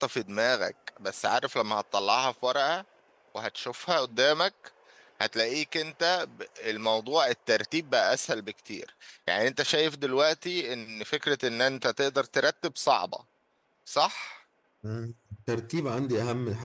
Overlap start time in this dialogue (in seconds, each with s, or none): none